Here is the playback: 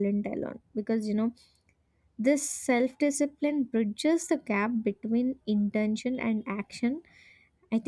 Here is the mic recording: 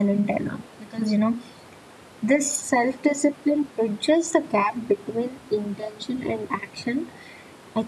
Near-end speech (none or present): none